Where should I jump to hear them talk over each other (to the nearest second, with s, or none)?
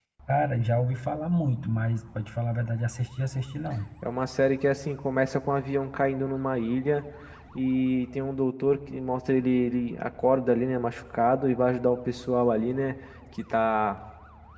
none